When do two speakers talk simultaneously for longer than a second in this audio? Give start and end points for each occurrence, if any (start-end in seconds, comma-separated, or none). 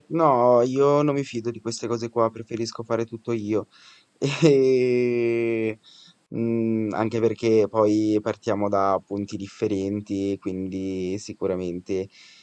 none